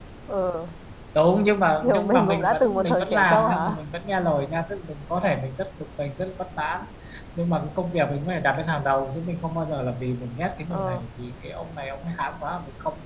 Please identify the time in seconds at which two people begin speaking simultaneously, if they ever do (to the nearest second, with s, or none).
2 s